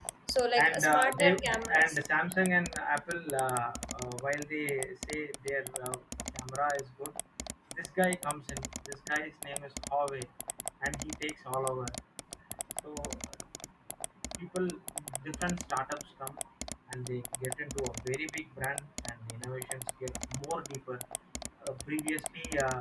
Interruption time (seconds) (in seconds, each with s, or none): 0.6 s